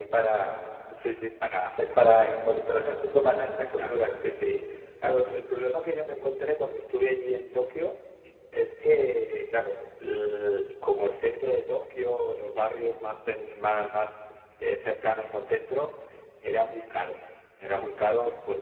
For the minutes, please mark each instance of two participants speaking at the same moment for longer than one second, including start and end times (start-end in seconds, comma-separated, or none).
none